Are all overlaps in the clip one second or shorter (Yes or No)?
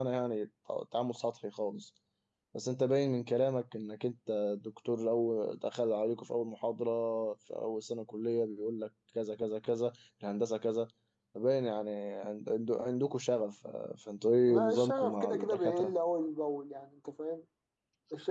No